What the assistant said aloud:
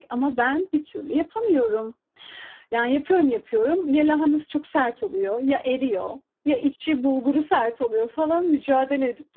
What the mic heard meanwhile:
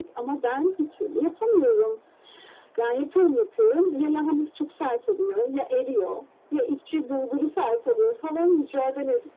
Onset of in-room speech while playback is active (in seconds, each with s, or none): none